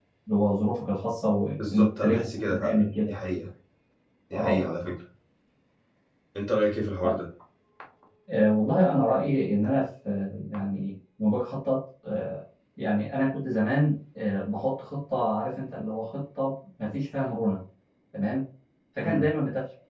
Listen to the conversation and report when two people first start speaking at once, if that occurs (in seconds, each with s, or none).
1.6 s